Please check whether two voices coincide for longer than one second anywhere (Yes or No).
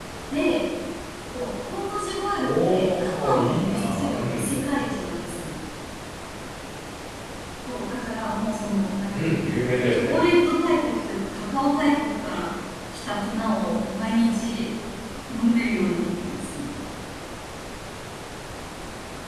Yes